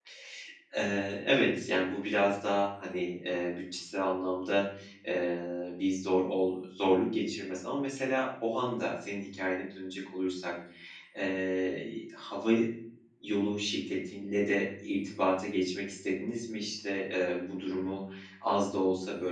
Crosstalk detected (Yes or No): No